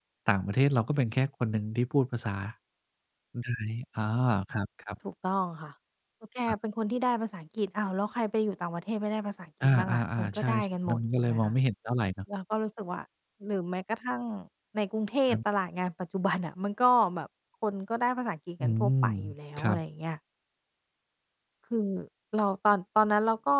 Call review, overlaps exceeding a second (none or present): present